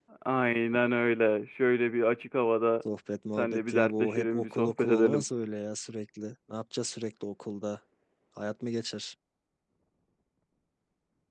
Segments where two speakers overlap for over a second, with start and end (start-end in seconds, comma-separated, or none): 3.4-5.2